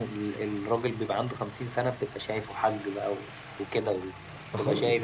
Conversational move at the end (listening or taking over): taking over